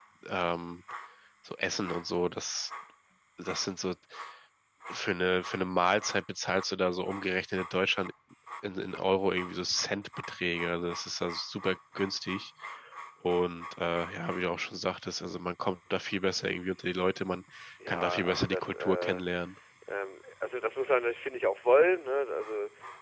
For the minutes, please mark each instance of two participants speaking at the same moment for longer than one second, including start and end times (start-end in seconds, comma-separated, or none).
17.9-19.2